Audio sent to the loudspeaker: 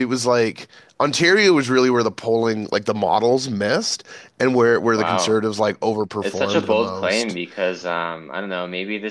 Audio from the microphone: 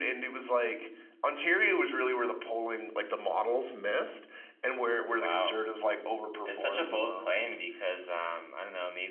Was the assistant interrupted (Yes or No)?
No